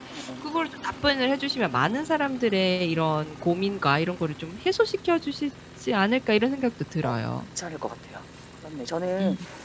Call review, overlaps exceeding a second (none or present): none